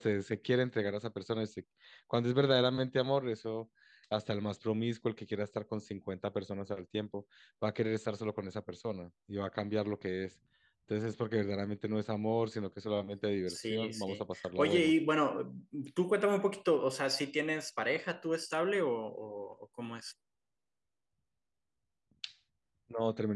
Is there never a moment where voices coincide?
No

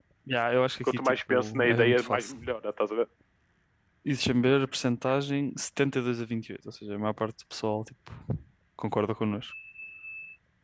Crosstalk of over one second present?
Yes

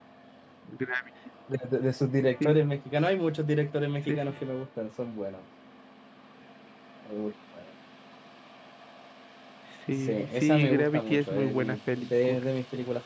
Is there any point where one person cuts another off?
Yes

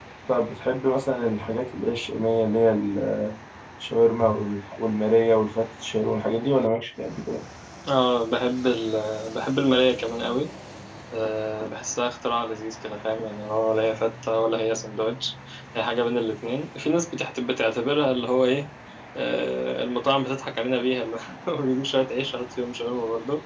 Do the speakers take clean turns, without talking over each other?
Yes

